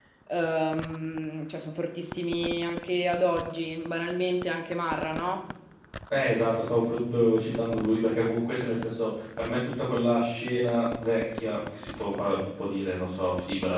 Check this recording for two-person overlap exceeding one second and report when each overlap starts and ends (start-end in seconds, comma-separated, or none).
none